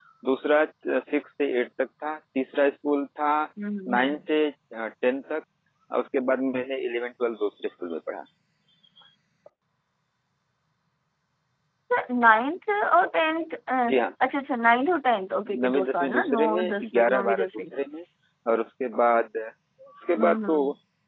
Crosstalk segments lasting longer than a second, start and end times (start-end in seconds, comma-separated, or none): 15.6-17.5